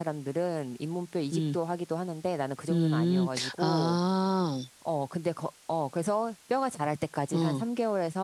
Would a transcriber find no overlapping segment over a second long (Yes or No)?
No